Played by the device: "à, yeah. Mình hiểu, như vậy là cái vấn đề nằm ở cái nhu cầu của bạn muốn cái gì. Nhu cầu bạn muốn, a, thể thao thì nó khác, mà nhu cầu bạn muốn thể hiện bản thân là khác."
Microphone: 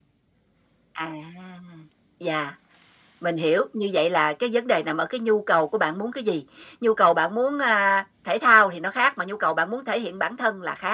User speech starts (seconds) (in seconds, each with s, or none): none